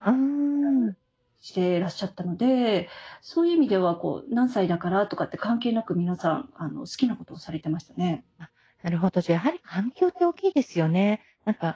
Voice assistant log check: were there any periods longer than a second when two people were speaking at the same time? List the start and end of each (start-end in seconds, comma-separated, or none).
none